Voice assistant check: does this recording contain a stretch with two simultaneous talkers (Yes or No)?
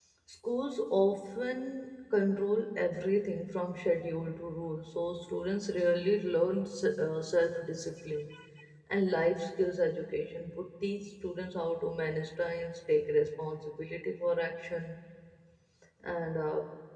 No